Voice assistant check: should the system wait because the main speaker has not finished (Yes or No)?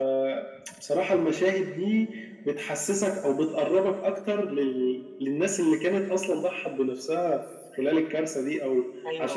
No